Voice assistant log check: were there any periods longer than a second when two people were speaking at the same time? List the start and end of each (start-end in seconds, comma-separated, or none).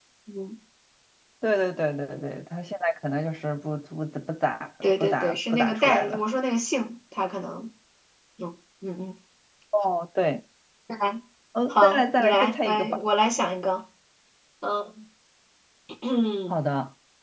5.0-6.2, 11.7-13.0